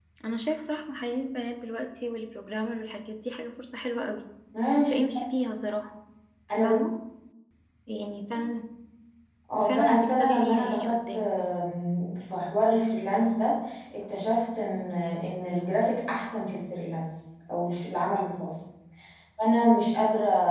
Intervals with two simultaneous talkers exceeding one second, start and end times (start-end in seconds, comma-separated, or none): 9.6-11.3